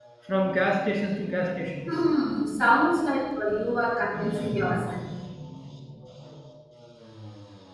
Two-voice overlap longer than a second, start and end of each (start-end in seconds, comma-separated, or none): none